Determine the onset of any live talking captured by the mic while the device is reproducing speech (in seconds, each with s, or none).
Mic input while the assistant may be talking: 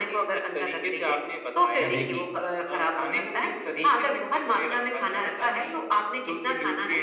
1.8 s